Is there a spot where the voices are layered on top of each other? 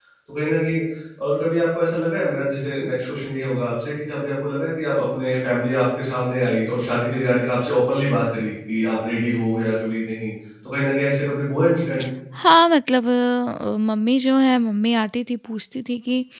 No

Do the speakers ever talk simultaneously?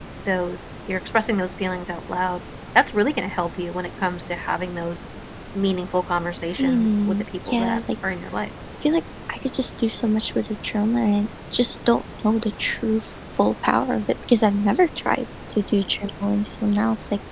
Yes, from 6.6 s

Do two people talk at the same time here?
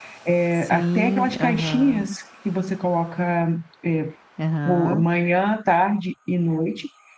Yes, from 0.5 s

